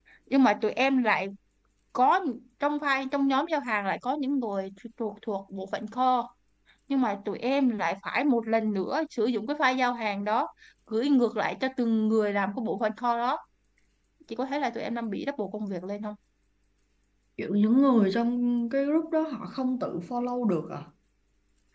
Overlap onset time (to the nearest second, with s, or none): none